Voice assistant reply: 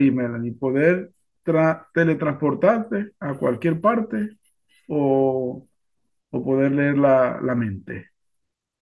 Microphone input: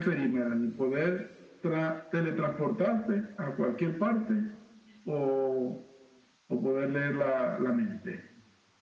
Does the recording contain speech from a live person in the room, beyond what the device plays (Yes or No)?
No